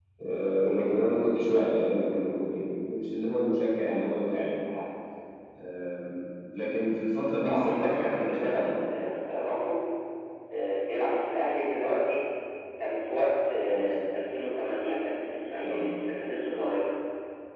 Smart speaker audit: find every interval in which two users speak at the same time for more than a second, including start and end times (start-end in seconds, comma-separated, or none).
7.3-8.7